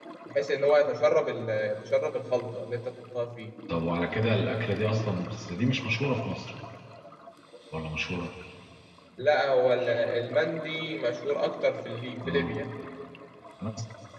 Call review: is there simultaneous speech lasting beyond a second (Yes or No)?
No